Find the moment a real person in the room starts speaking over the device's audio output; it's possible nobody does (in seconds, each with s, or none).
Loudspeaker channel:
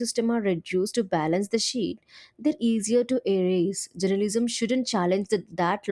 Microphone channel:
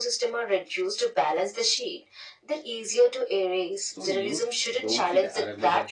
3.9 s